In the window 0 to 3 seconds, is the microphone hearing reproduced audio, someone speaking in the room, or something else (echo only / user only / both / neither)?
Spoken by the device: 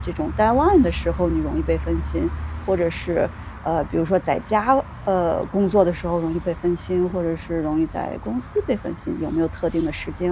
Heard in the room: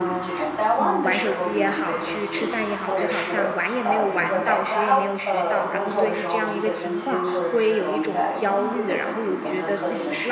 both